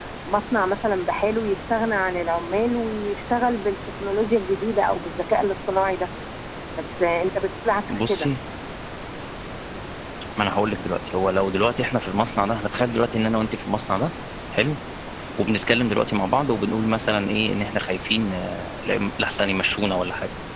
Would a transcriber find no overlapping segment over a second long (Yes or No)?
Yes